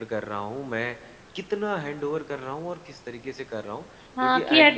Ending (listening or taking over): taking over